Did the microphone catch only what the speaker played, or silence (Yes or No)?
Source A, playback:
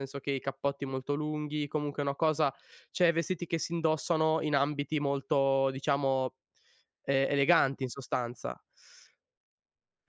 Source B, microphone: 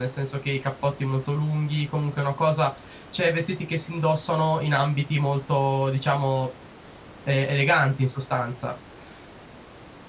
Yes